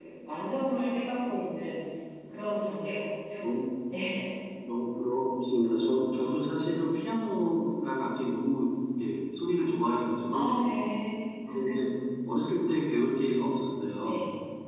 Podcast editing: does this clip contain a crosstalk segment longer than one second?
No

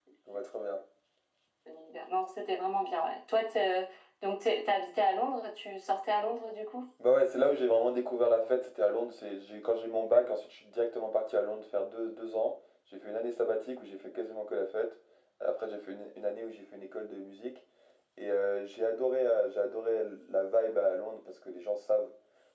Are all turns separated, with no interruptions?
Yes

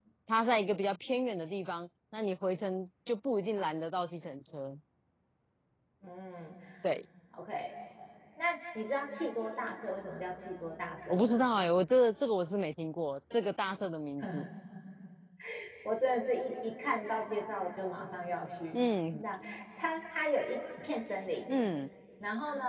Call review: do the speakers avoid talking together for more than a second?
Yes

